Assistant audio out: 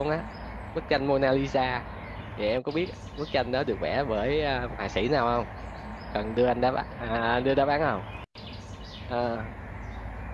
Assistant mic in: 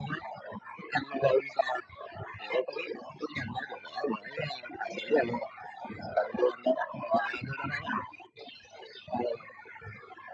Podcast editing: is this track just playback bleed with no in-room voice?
Yes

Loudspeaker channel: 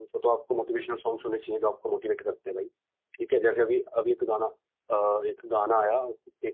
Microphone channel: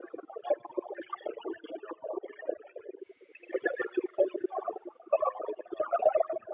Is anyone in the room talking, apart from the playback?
No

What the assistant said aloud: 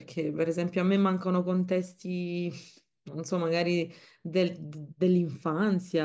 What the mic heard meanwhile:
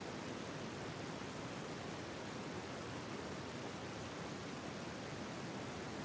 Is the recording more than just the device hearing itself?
No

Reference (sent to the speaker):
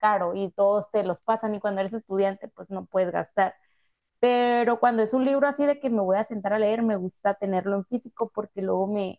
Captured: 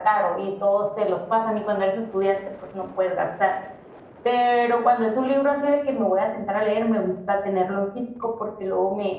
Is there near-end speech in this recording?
No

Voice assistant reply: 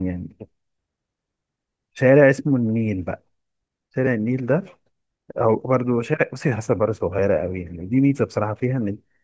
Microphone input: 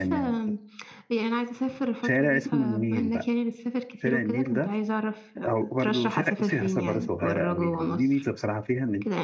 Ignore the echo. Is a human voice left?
Yes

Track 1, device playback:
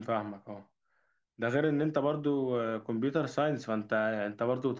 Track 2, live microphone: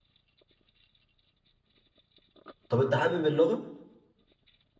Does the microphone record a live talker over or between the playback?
Yes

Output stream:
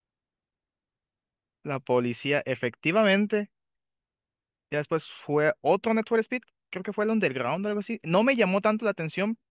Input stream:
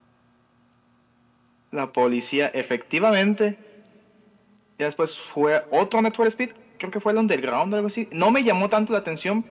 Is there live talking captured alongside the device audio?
No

